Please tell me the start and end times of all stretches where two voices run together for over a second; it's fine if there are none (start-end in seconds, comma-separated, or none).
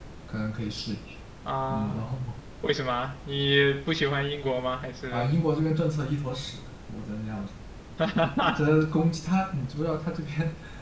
none